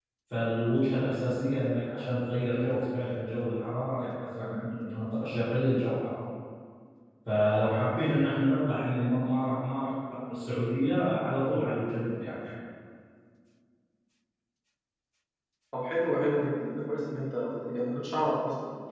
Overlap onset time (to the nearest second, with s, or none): none